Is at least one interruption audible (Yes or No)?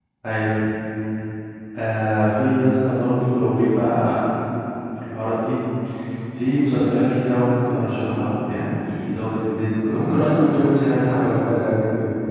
Yes